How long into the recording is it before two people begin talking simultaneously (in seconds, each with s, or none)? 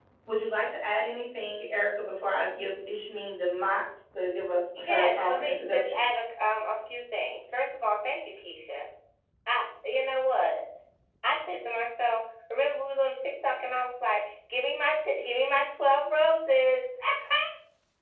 4.8 s